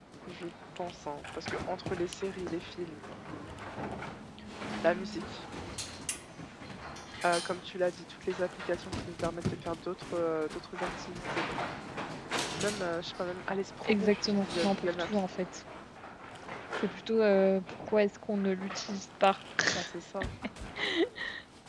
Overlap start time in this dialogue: 14 s

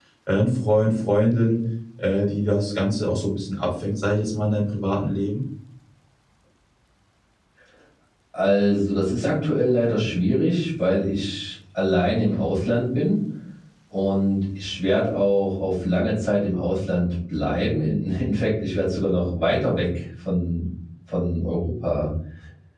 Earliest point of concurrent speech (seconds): none

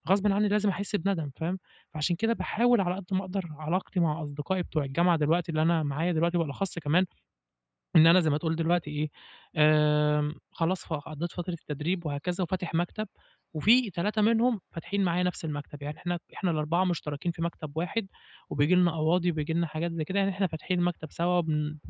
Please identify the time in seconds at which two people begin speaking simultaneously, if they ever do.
none

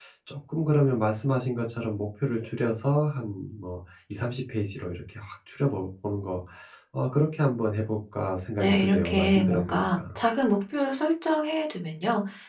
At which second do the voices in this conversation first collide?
9 s

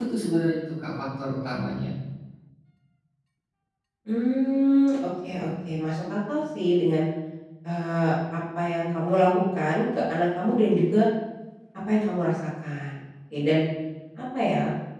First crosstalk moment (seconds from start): none

